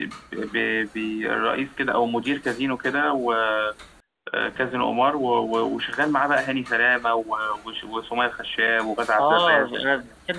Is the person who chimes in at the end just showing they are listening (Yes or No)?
No